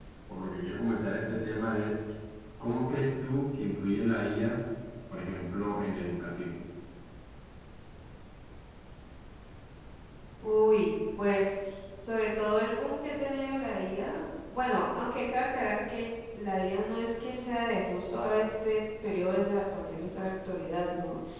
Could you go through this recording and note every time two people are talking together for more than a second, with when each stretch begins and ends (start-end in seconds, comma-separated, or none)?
none